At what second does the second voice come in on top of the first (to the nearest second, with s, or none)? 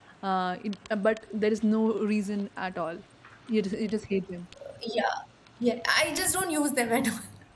none